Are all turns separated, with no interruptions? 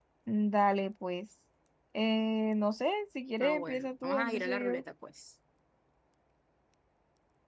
No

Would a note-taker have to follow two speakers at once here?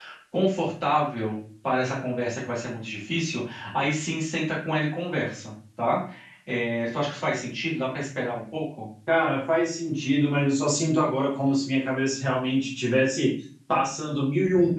No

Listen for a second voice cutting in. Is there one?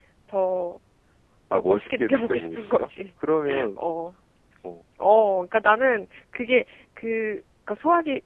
Yes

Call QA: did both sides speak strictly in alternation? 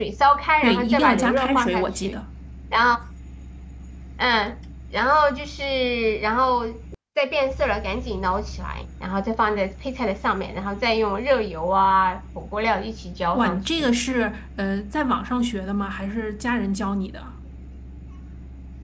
No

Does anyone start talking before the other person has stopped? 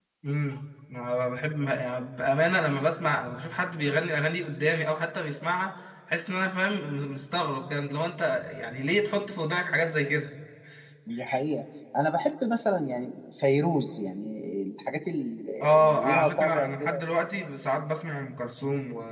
Yes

